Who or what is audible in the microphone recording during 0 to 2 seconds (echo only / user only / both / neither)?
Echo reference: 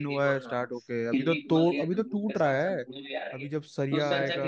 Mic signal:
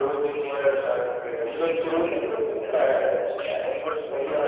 echo only